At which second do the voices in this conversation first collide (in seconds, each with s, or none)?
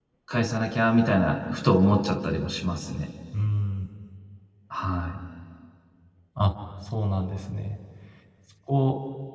none